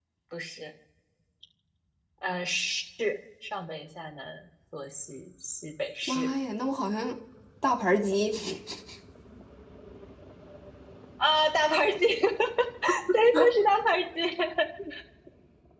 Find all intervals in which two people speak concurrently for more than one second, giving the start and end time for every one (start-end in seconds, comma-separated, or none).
none